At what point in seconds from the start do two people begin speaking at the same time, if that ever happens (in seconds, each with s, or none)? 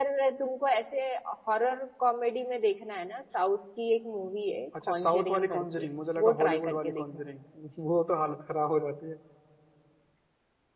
4.7 s